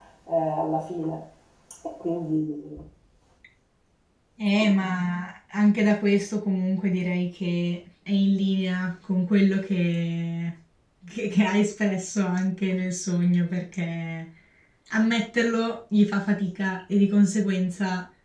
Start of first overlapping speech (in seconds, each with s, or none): none